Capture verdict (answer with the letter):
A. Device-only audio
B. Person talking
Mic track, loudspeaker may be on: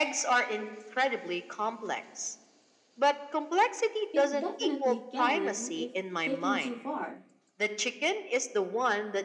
B